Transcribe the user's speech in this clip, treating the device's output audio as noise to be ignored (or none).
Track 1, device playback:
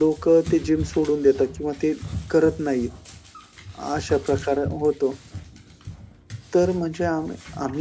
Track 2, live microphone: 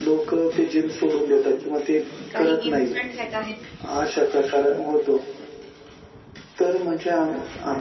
काही इन्स्टंट हॅक आहेत?